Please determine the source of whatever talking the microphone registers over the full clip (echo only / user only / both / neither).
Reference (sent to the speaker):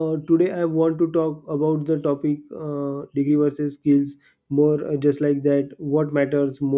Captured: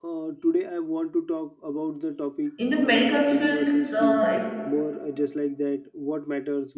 both